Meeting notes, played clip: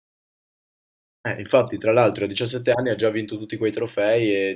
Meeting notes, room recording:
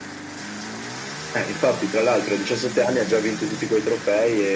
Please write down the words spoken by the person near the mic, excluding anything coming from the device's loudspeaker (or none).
none